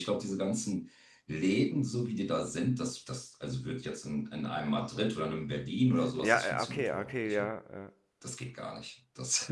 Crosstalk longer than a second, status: present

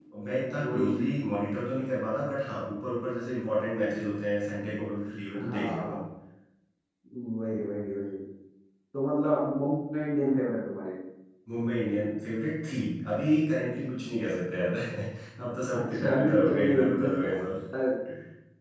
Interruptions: present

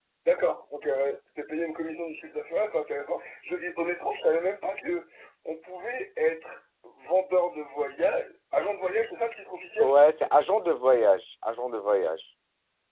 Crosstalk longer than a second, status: none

